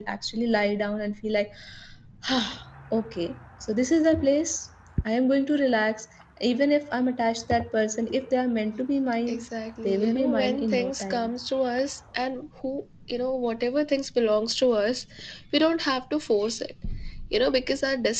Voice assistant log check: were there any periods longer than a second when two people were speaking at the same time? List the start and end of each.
9.9-11.3

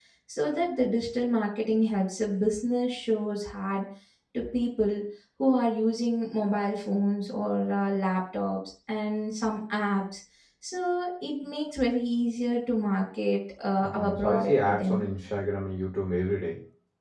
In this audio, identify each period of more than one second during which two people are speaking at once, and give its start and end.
13.8-15.1

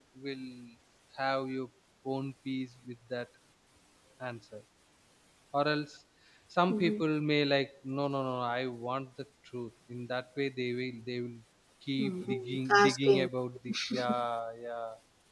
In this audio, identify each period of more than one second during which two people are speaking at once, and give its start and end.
12.0-13.3

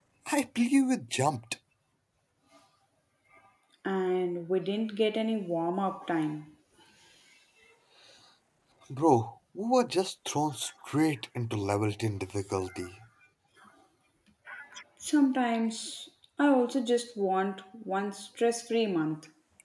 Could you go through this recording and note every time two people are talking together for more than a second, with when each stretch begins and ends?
none

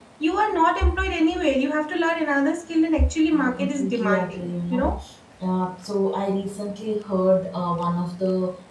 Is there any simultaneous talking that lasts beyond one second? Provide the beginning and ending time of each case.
3.4-4.8

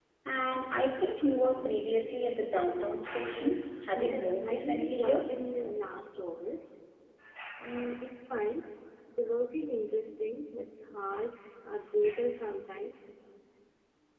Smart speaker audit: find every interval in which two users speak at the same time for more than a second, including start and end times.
3.9-5.2

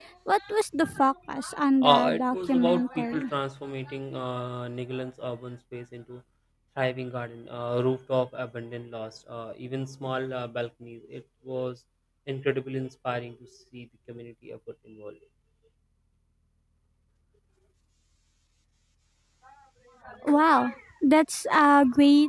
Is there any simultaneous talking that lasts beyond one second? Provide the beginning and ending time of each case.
1.8-3.2

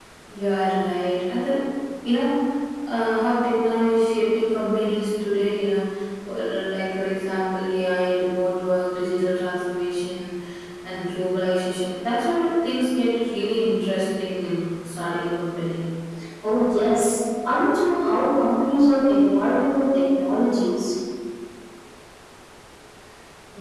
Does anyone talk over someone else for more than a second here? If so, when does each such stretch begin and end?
none

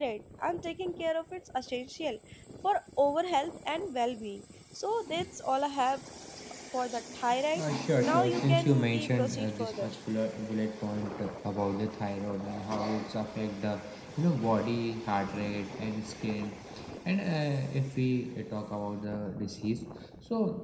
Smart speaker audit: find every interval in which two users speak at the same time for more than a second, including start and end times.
8.0-9.9

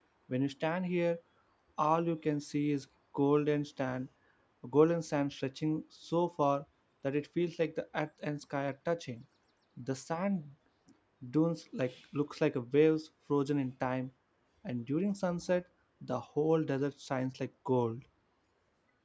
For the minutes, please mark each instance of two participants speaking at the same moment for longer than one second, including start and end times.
none

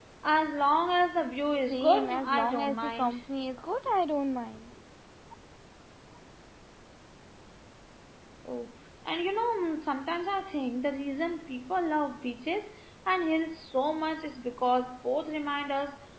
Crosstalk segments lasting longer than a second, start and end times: 1.7-3.1

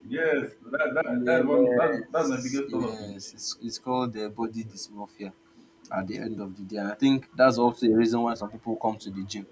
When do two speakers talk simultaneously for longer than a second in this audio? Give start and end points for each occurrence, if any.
1.2-3.1

